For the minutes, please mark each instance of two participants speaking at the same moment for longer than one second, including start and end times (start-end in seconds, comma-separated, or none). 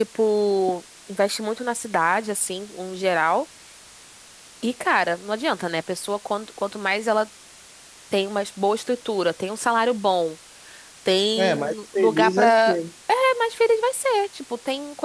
11.4-12.8